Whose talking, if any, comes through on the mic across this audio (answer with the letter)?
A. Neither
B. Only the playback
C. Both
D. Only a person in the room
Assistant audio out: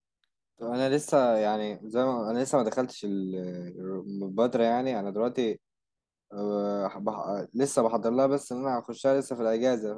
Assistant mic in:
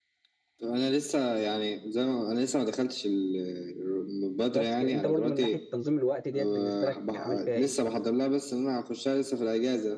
C